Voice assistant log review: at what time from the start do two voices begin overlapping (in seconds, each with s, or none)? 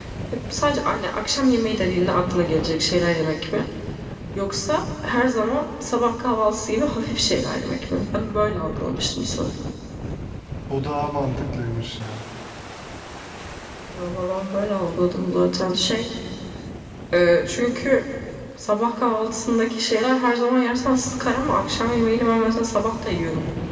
none